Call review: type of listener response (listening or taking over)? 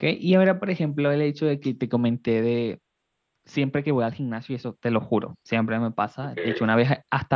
listening